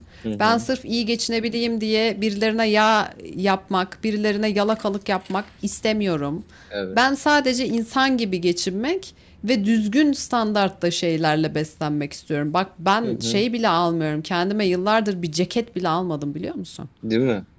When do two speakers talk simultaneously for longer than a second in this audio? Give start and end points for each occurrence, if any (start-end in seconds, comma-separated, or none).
none